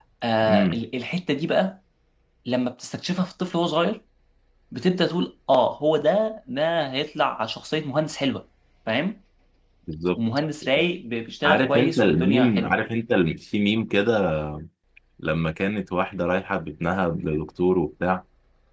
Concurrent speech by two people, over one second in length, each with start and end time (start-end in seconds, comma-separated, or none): 11.4-12.7